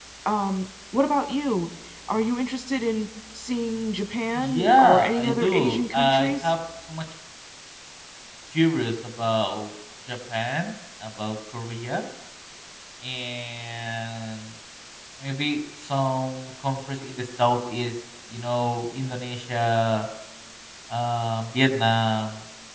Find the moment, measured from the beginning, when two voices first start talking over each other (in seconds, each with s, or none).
4.4 s